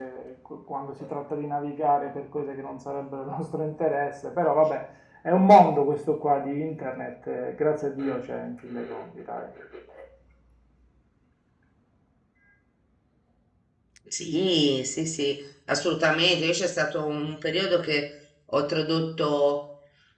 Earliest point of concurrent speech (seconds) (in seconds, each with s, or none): none